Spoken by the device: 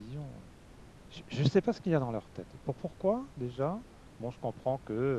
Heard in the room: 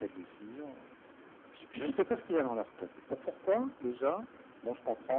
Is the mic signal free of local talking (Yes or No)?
Yes